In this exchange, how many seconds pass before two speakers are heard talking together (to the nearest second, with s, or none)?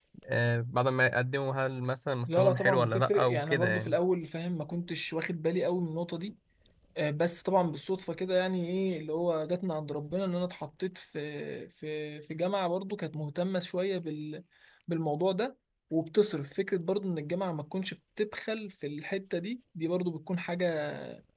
2 s